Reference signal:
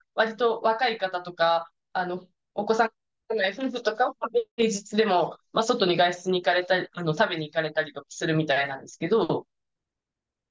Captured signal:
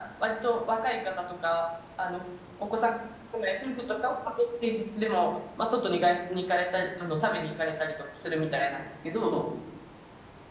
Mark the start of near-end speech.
none

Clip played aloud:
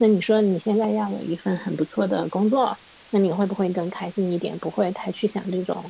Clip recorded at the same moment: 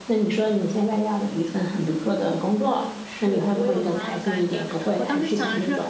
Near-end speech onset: 2.7 s

